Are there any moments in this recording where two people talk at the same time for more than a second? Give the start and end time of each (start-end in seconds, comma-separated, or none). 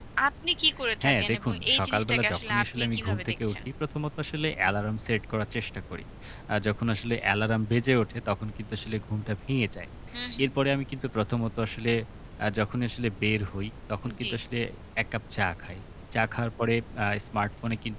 1.0-3.6